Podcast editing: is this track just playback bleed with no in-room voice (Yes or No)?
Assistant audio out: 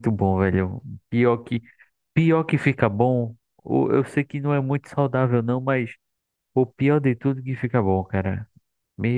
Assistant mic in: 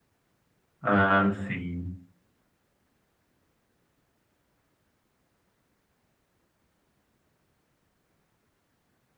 No